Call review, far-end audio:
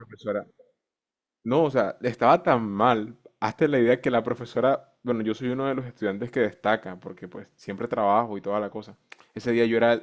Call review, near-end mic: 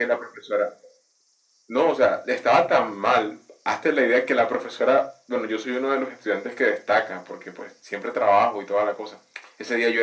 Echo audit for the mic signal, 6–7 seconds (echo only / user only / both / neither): echo only